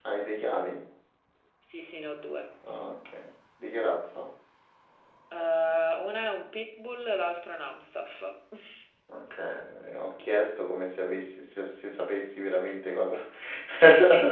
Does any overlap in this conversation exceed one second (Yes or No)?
No